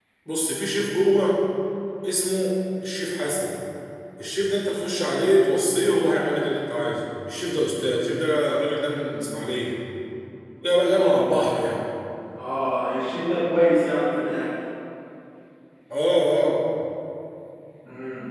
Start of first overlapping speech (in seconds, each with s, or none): none